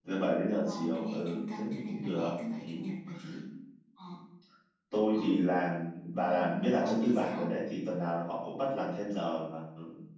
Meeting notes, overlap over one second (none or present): present